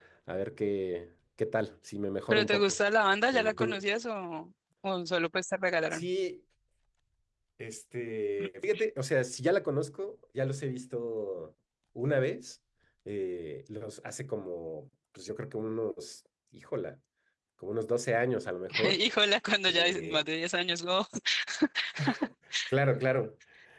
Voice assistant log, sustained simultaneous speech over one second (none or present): none